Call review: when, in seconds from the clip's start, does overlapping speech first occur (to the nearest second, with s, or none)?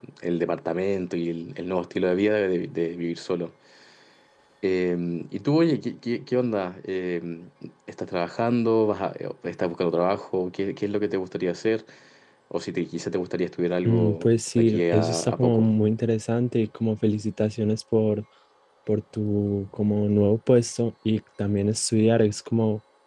14 s